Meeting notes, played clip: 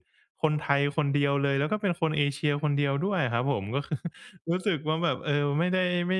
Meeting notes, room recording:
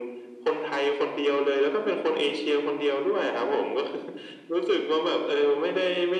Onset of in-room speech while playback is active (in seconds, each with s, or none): none